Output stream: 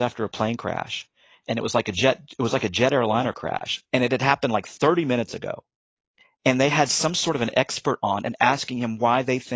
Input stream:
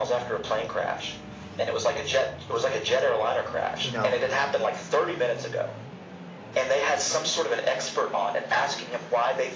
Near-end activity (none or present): present